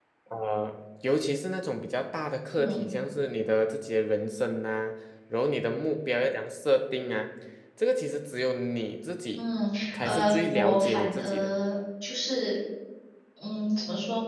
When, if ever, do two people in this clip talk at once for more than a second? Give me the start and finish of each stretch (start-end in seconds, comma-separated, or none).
9.9-11.5